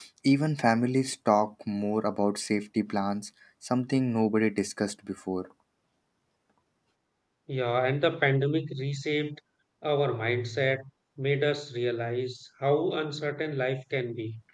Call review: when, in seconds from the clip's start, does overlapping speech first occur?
none

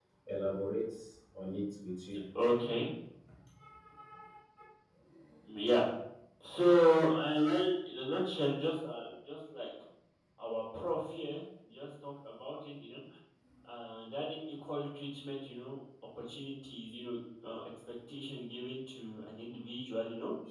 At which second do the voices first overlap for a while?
none

